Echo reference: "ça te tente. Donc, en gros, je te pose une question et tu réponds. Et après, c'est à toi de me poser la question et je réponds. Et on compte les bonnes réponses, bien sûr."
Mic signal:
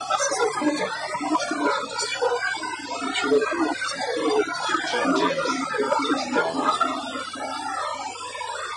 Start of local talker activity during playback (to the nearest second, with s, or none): 5 s